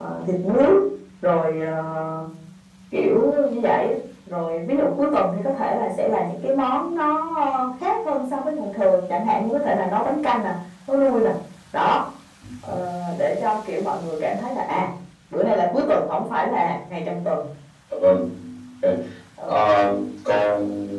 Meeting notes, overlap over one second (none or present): none